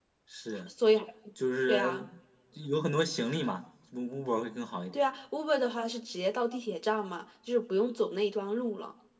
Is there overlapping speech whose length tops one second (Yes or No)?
No